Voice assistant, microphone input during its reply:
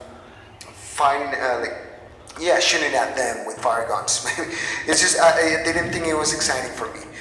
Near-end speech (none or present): none